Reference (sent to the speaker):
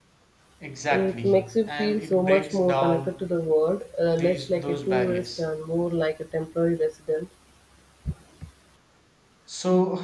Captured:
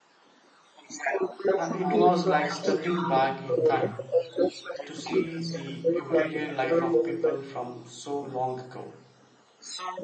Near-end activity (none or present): present